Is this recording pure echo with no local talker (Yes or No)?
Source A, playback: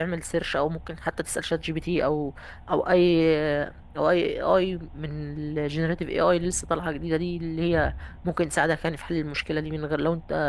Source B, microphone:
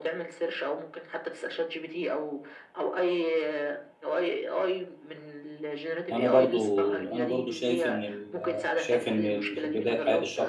No